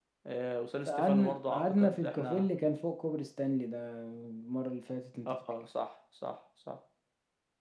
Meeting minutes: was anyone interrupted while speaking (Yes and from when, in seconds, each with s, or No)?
Yes, from 0.9 s